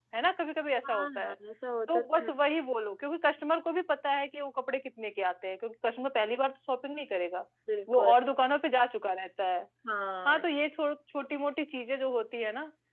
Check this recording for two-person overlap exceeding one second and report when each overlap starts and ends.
none

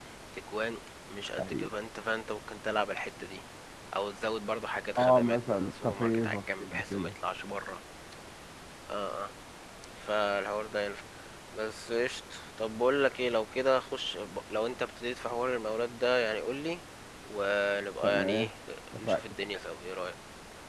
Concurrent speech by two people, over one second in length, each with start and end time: 5.0-7.1

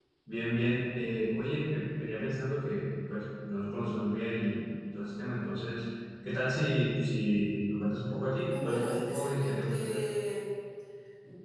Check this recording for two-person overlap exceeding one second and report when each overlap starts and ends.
8.6-10.0

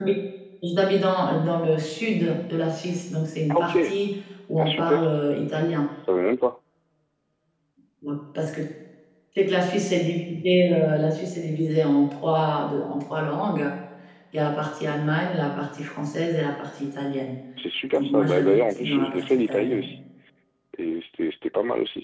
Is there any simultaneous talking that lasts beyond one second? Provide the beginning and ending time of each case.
17.9-19.9

